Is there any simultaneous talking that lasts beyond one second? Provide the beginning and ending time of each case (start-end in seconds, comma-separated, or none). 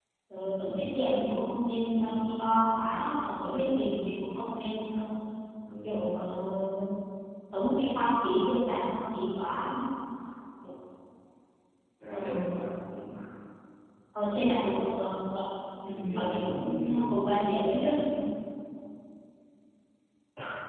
15.9-17.2